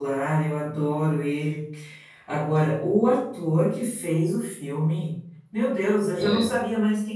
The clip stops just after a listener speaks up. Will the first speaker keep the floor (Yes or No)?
Yes